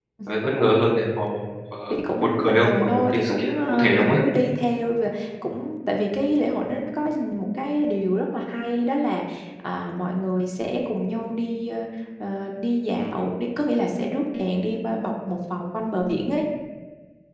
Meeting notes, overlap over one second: present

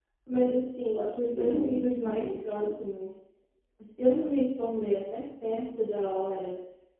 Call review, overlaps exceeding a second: present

